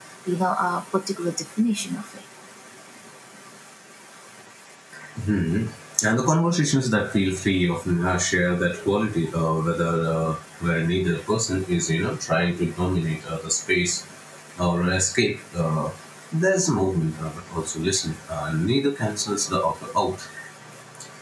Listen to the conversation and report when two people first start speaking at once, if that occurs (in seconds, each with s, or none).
none